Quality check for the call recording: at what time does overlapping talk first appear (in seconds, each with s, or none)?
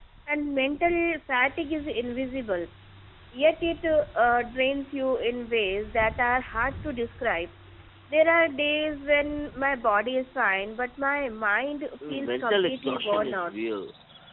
12.3 s